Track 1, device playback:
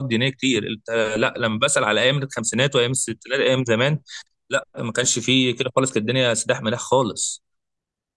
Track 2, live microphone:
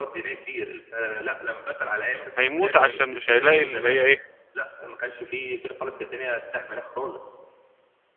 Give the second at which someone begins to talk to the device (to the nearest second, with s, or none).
2 s